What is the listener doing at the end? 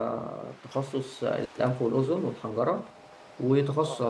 listening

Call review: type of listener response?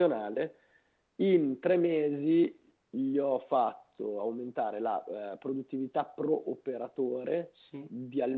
listening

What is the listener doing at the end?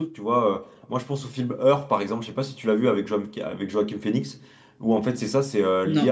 listening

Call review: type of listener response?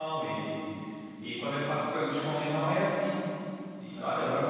listening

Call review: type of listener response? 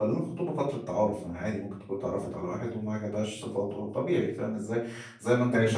listening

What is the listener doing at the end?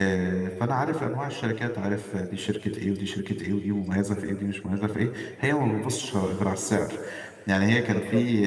listening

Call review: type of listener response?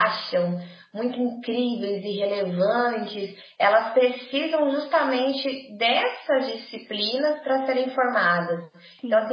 listening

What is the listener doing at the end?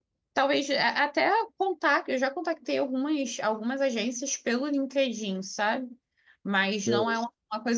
listening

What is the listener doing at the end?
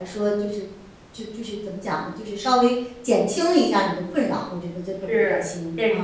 taking over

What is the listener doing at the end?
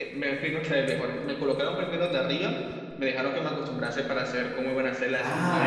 taking over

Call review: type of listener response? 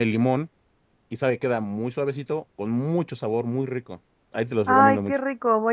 taking over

